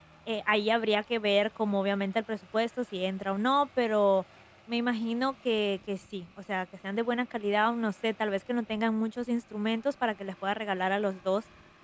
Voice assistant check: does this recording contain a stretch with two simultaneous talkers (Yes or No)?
No